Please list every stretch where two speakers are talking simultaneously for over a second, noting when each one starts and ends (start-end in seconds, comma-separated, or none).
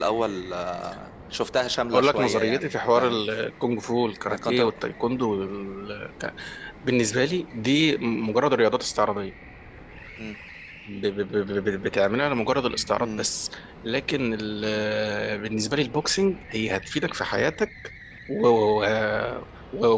1.9-3.2